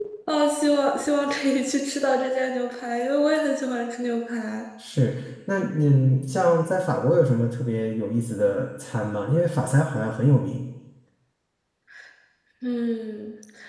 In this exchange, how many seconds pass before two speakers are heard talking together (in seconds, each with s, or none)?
none